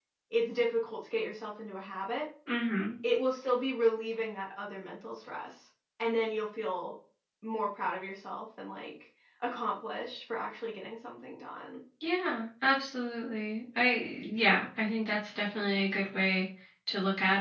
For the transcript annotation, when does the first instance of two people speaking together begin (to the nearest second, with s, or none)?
none